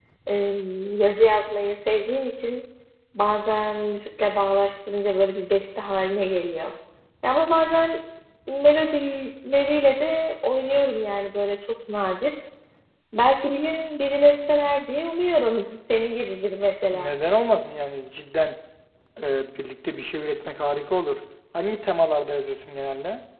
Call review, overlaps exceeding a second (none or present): none